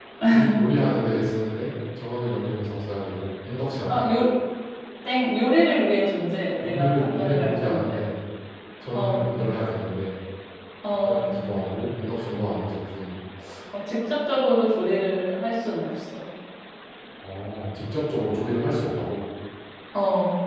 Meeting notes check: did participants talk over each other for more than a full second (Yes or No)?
Yes